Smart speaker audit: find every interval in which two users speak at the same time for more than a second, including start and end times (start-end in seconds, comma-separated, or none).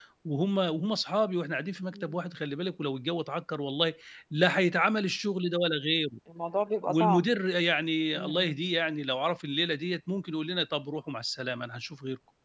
none